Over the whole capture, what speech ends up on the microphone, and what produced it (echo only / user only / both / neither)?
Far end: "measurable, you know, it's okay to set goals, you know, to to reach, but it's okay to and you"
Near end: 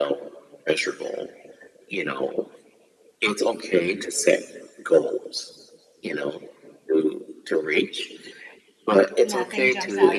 both